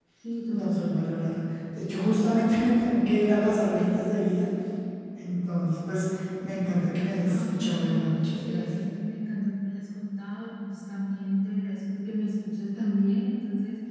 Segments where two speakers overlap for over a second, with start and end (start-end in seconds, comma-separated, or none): 7.2-8.7